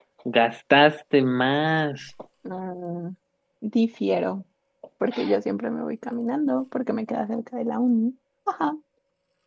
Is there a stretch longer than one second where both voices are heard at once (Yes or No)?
No